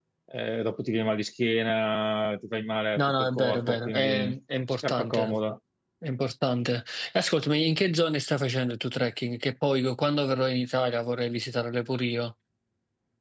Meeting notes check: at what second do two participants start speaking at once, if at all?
3.0 s

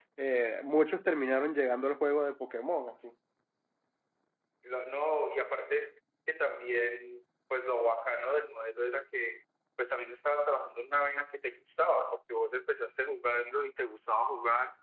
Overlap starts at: none

